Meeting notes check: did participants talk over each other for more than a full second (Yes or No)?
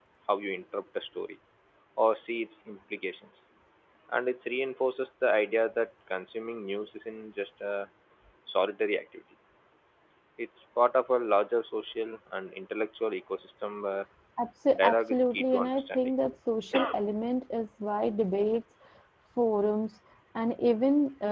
Yes